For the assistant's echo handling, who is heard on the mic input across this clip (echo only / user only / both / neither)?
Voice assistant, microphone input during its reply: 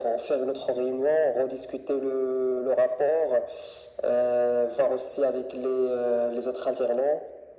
echo only